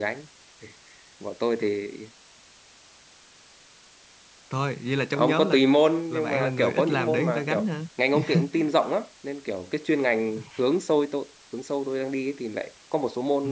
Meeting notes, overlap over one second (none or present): present